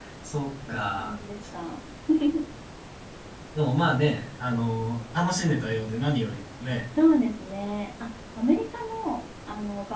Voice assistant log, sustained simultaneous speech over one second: none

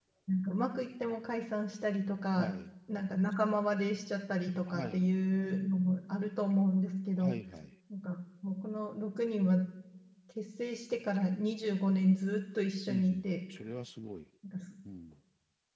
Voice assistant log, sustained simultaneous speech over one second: none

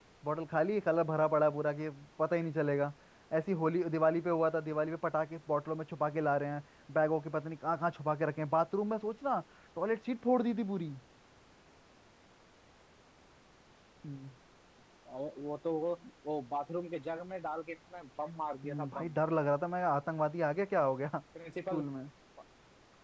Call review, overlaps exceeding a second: none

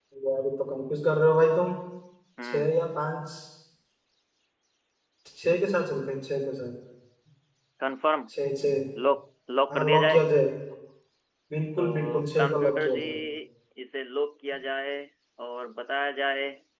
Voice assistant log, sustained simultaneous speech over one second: present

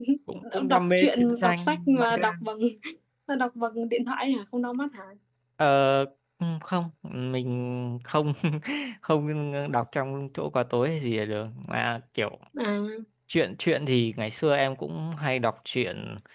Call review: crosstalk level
present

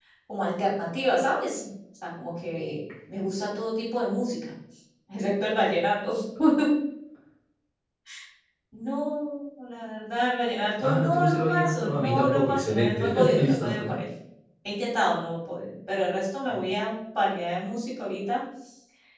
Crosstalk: present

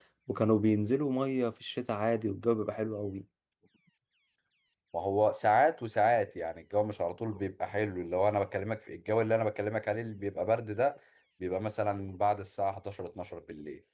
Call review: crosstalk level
none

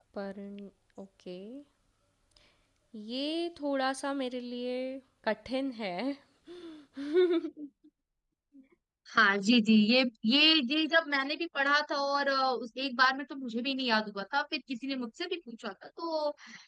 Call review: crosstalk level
none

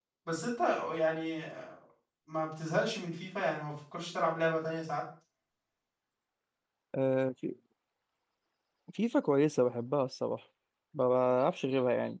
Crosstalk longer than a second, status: none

